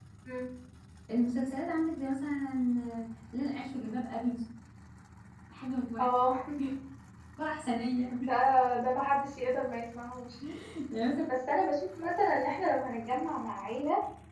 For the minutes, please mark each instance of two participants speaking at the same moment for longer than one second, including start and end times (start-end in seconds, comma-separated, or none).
none